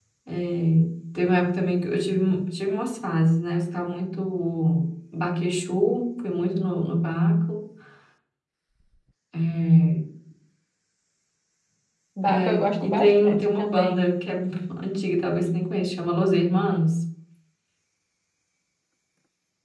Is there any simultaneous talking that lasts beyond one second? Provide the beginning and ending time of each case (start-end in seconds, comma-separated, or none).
12.2-14.0